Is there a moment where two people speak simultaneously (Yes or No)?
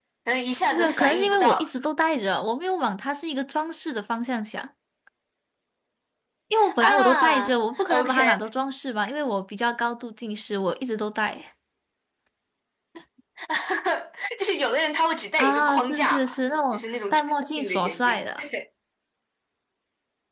Yes